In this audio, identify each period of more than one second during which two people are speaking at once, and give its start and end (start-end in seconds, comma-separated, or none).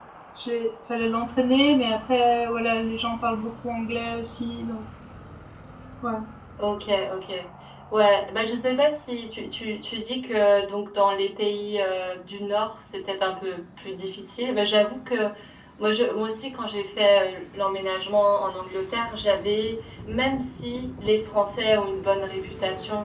none